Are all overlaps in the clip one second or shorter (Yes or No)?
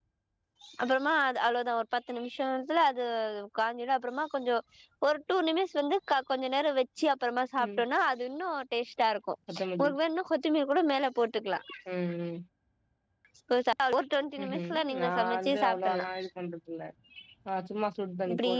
No